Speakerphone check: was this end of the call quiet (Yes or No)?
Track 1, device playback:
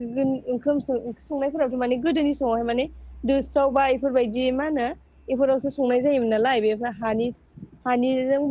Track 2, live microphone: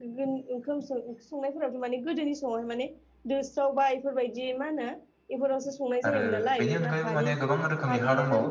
No